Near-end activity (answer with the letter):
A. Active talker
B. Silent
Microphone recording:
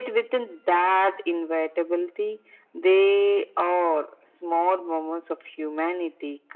B